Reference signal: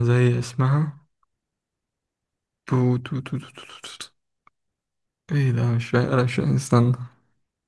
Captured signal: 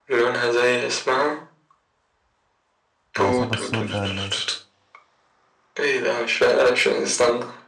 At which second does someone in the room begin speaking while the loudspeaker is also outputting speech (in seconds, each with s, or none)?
3.2 s